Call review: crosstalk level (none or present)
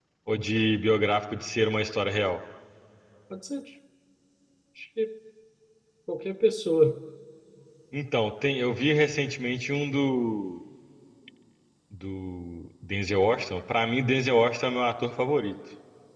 none